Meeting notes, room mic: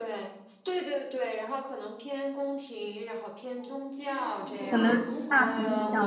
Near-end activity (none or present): present